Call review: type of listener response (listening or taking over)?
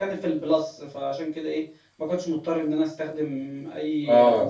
taking over